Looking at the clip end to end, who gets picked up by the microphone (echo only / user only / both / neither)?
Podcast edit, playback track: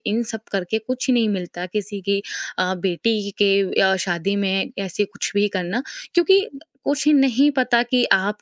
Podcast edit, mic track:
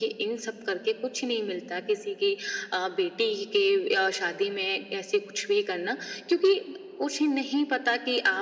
echo only